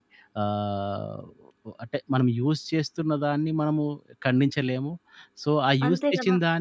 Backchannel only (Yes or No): Yes